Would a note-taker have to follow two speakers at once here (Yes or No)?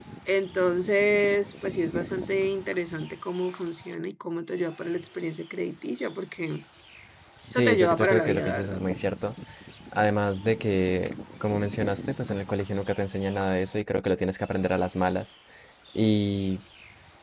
Yes